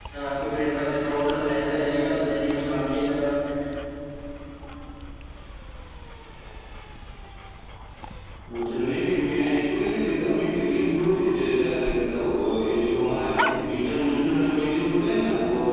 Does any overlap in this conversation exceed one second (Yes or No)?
No